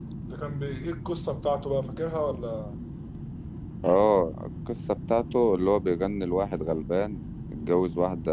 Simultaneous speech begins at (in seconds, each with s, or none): none